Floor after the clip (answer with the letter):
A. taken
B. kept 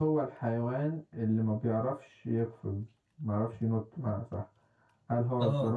B